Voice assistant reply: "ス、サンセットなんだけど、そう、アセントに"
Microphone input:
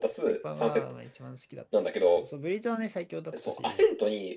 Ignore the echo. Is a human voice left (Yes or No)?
Yes